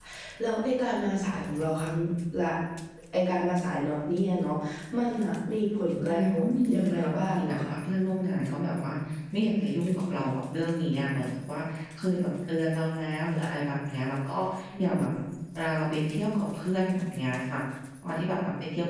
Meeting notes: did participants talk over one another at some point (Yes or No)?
Yes